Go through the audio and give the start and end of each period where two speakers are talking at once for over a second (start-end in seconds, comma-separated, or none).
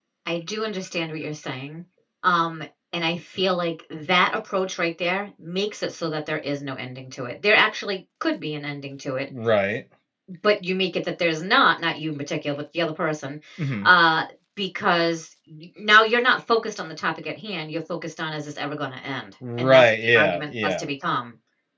19.6-20.9